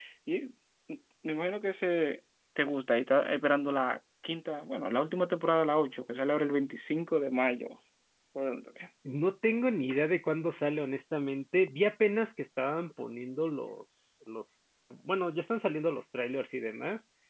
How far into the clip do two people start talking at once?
none

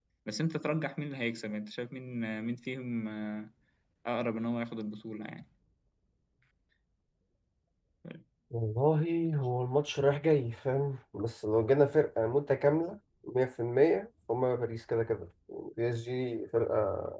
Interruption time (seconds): none

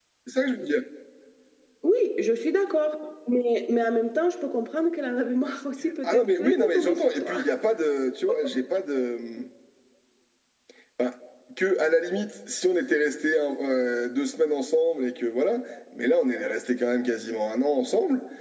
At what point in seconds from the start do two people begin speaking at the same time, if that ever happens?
6 s

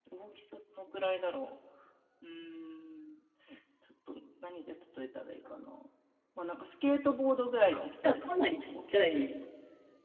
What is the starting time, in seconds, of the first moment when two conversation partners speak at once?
8 s

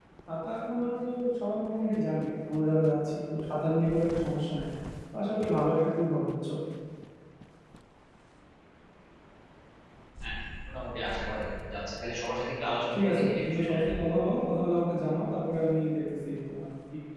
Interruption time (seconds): 13 s

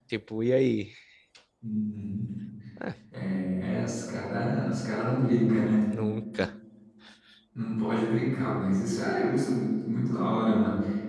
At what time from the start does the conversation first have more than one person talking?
none

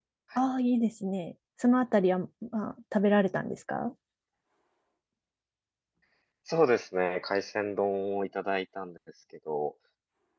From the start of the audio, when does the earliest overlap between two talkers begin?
none

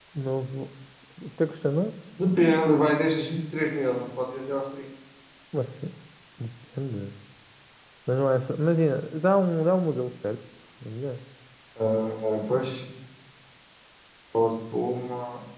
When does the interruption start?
none

